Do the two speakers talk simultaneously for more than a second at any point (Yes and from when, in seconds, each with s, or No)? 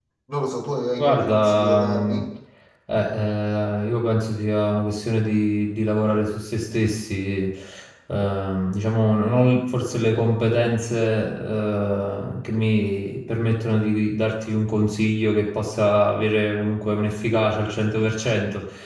Yes, from 1.0 s